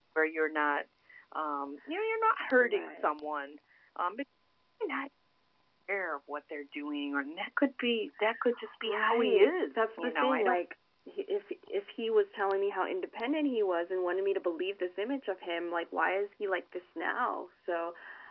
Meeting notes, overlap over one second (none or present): present